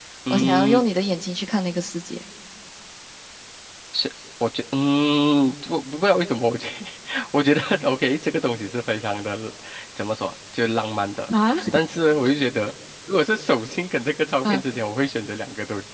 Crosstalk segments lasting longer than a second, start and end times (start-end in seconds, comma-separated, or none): none